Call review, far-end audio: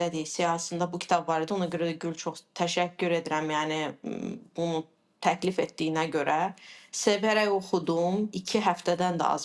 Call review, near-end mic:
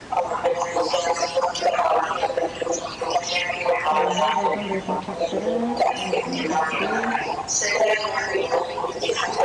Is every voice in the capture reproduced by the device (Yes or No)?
No